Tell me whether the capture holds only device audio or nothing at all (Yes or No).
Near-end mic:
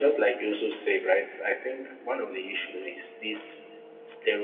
Yes